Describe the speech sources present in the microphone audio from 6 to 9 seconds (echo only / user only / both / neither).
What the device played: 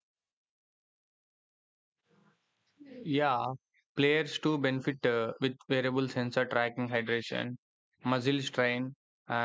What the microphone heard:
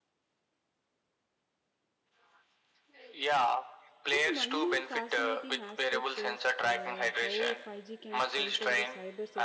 both